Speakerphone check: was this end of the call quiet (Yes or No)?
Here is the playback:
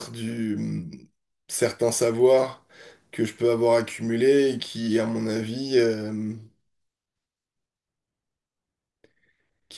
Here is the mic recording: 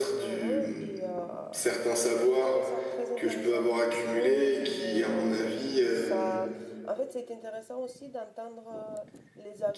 No